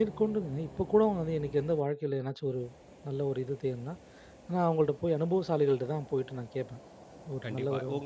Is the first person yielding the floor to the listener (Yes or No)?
Yes